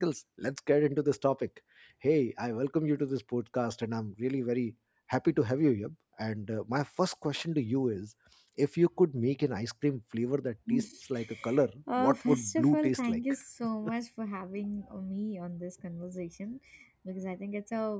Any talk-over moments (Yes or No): Yes